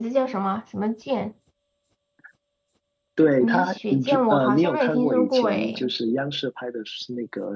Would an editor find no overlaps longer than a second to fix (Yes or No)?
No